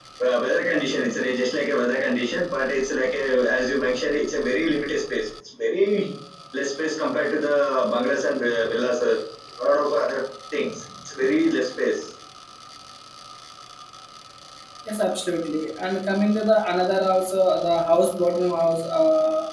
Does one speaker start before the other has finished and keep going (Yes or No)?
No